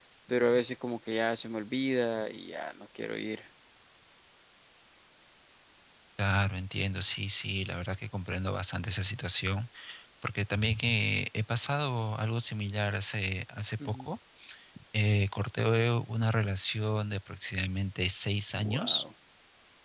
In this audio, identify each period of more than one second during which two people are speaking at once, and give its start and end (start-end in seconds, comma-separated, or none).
none